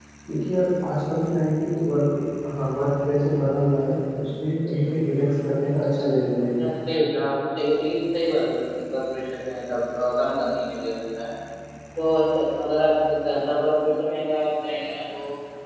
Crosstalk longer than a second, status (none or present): none